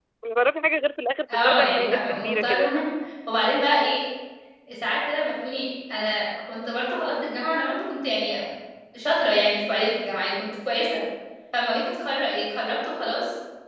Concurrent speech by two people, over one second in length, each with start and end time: 1.3-2.8

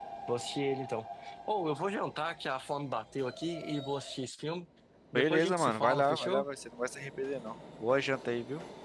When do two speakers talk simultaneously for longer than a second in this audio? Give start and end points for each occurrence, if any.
5.2-6.5

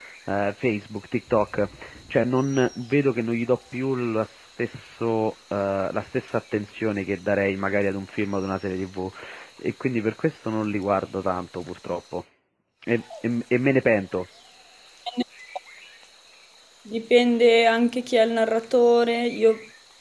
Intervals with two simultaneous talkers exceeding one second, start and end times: none

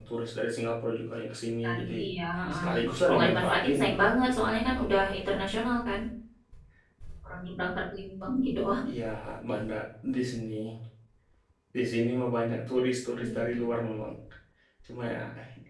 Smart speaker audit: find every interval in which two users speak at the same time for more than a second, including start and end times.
2.5-3.8

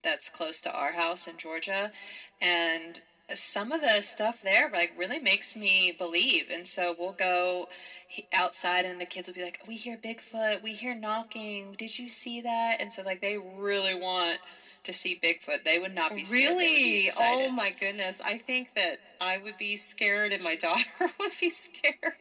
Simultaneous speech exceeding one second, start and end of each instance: 16.2-17.5

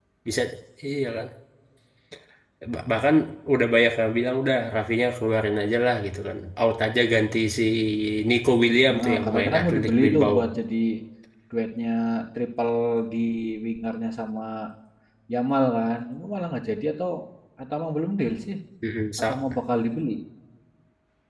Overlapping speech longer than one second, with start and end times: 8.9-10.3

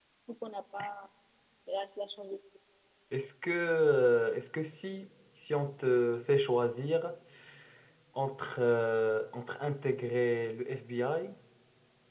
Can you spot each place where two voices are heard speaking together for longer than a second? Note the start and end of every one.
none

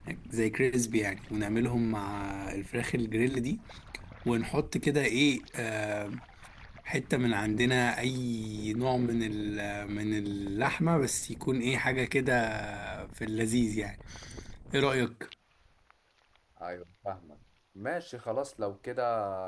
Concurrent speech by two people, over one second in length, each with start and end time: none

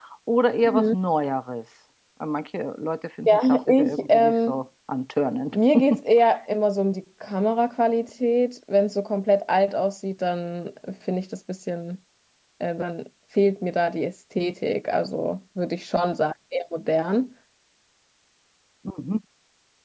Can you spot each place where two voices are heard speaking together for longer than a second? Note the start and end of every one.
3.3-4.6

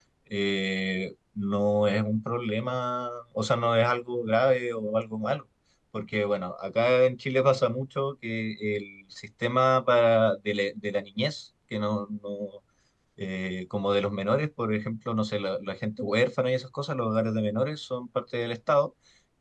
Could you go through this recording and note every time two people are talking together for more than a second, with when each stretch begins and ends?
none

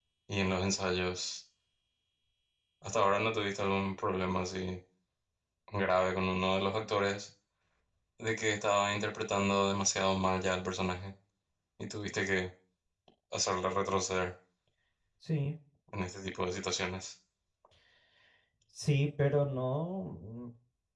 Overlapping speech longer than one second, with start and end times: none

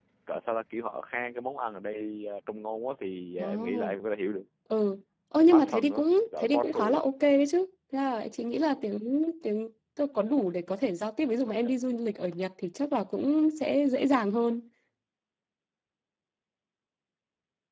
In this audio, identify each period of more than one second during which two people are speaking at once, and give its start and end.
5.5-7.0

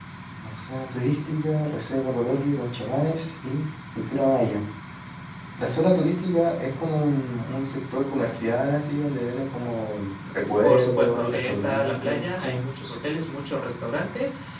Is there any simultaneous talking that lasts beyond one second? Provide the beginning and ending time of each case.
10.6-12.6

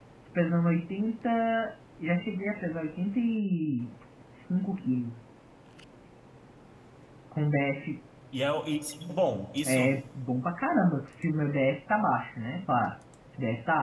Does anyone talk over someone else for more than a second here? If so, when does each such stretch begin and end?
none

